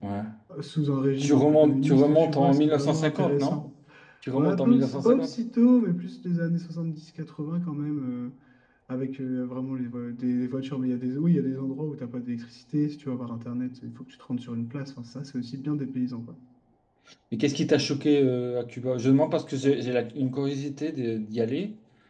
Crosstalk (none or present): present